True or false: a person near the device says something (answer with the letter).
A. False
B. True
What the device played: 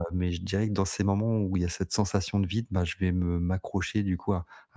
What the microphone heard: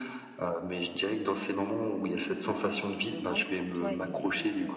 B